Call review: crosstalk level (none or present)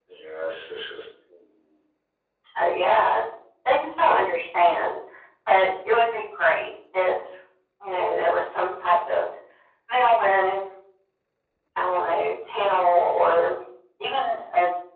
none